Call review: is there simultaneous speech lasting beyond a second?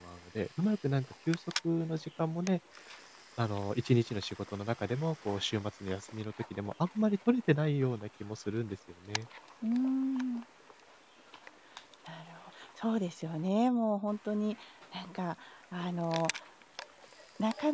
No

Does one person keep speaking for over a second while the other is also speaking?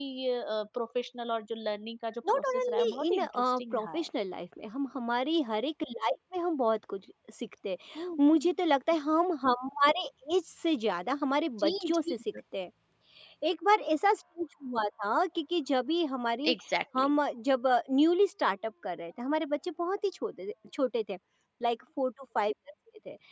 Yes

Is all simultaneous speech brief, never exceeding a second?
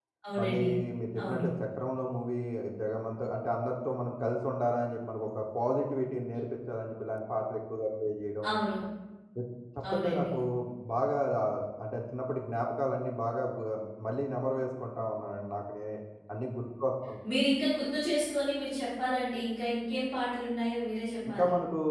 Yes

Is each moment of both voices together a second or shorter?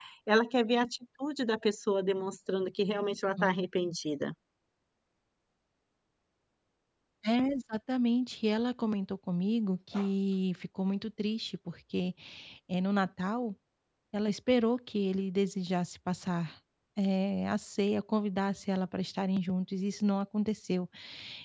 Yes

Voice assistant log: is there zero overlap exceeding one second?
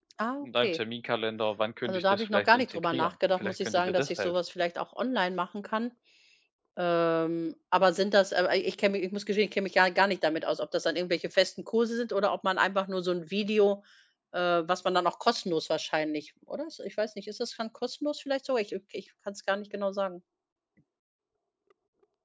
No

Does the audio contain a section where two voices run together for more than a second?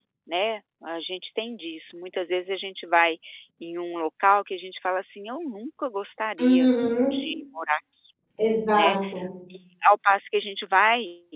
No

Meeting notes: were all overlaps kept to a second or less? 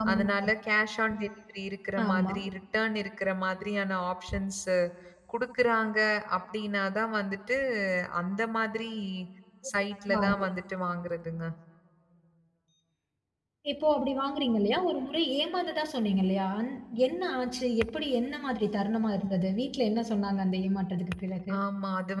Yes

